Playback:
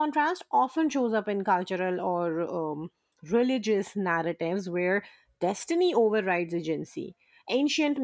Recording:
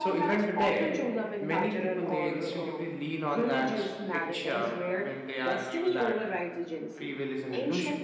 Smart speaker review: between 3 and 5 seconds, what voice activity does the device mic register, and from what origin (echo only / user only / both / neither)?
both